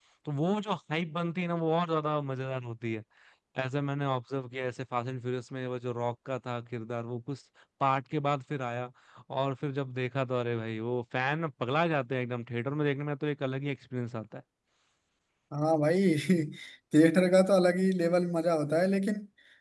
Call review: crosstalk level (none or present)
none